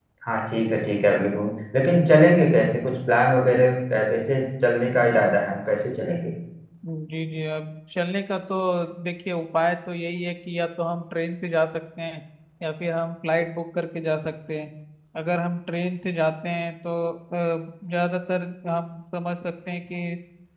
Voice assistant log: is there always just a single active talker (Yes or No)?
Yes